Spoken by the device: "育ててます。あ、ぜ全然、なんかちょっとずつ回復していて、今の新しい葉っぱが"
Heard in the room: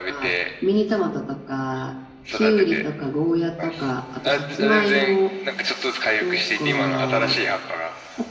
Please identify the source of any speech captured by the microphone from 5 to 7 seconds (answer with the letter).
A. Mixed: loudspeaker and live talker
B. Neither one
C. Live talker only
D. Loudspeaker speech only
A